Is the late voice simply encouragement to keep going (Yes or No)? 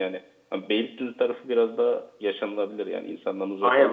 No